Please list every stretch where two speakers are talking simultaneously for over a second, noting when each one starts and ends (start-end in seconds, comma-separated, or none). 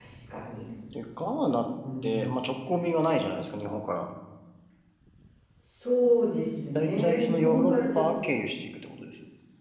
6.8-8.3